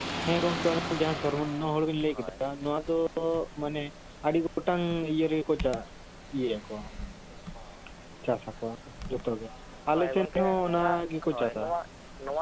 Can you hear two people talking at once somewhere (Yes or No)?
Yes